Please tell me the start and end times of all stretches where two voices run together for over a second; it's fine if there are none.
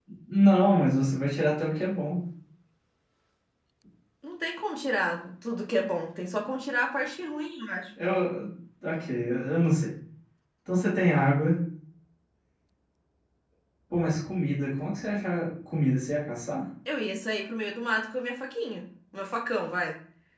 none

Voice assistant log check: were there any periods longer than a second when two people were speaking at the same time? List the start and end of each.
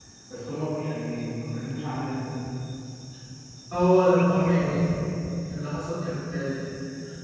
none

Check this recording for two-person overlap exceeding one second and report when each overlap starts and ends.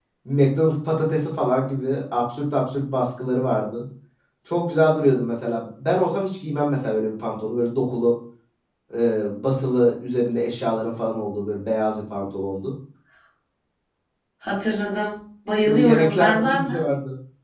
15.7-16.9

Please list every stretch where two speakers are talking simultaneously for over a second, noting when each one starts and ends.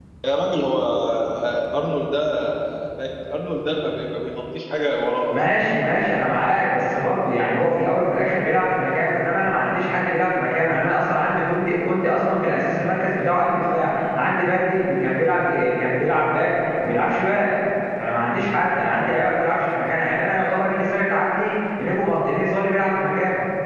none

